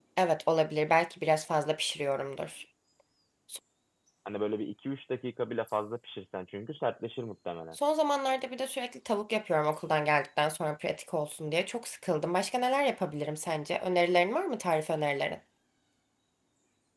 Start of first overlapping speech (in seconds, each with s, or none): none